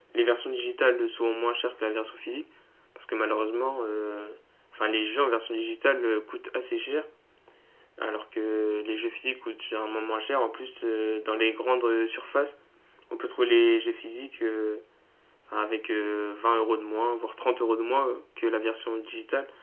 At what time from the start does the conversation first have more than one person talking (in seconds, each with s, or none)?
none